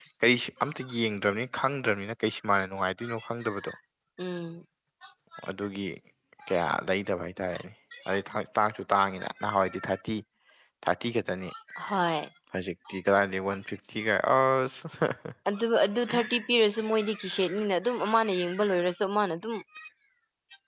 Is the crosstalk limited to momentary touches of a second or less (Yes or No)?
Yes